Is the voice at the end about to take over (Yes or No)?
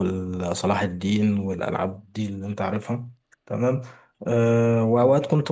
No